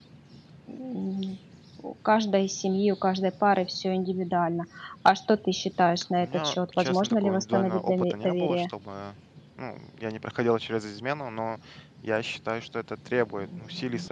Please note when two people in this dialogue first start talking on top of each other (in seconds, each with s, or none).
6.2 s